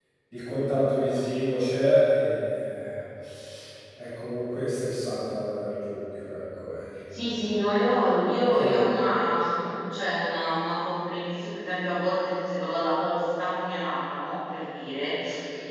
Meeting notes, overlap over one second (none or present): none